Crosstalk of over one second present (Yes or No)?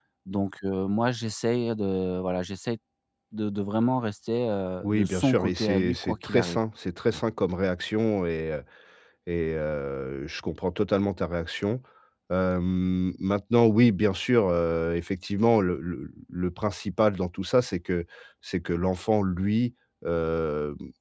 Yes